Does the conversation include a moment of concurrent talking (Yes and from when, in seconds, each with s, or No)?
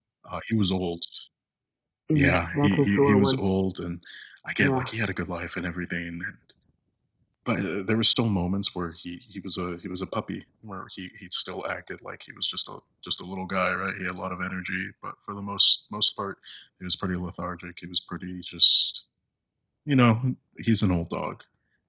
Yes, from 2.1 s